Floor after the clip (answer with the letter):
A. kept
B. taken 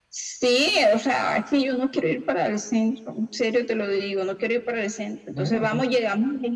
A